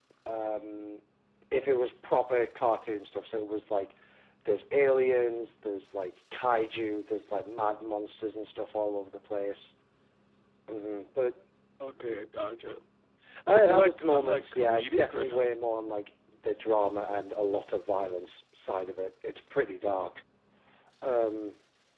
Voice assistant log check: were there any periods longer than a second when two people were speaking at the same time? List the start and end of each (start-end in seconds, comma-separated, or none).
13.5-15.4